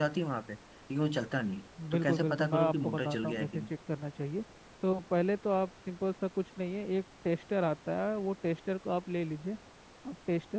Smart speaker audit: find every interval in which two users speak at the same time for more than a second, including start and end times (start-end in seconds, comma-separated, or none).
1.9-3.6